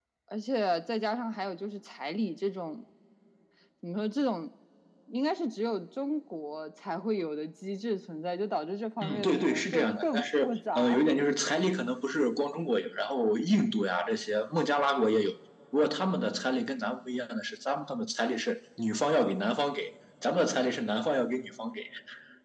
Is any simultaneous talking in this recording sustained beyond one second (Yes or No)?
Yes